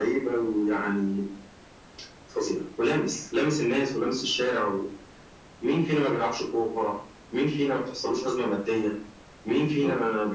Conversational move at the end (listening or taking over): listening